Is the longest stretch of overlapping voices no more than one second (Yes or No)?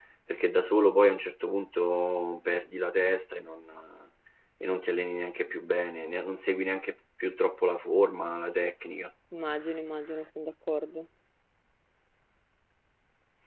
Yes